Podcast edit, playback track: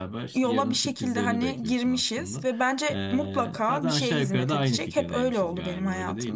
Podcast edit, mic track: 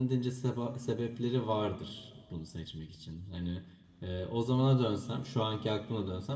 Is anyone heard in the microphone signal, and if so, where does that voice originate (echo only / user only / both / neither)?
user only